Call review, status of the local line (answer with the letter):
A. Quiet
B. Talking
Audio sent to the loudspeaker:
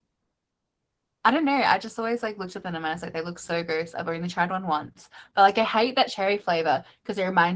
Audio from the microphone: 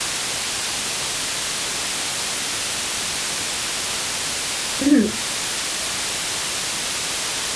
B